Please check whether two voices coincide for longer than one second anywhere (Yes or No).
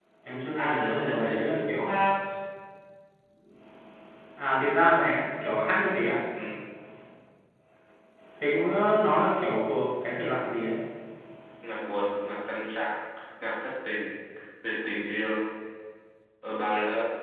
Yes